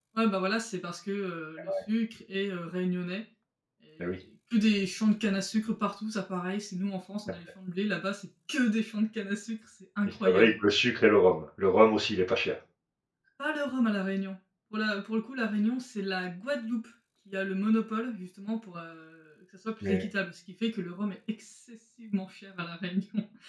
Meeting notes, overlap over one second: none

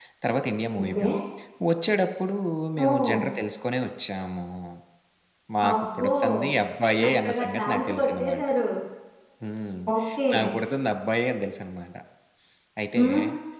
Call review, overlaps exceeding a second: present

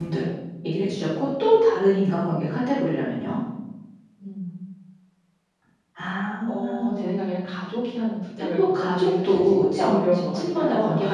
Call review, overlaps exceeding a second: present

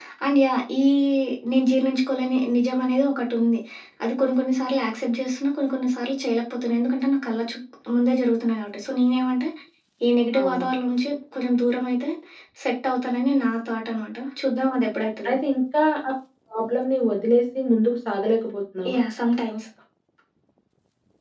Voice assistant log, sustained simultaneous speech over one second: none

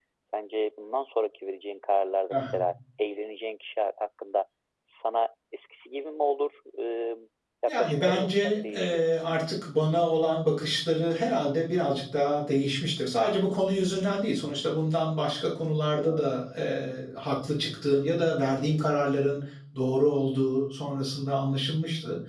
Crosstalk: present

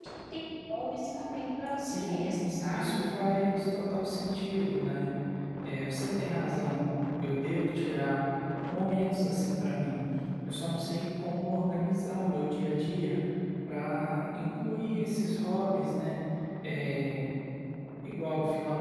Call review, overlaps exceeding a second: none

